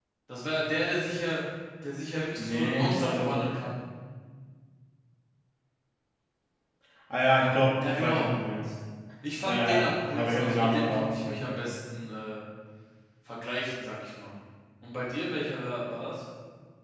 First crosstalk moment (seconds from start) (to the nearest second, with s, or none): 2 s